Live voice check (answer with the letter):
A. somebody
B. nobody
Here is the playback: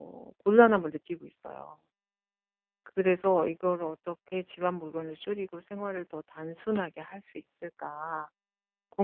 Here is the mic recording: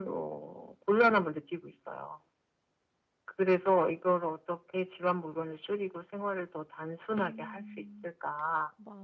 A